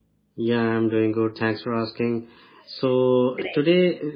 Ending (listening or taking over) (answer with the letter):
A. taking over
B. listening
B